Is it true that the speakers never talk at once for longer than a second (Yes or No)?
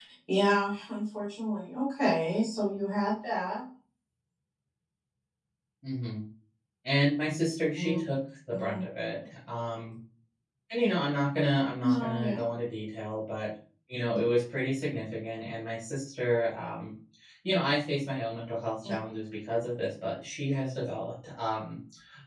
Yes